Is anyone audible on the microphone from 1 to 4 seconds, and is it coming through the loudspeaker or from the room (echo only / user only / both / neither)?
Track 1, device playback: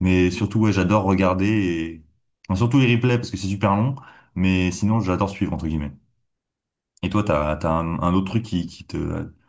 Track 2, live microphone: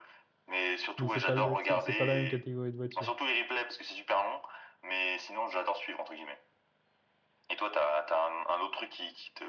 both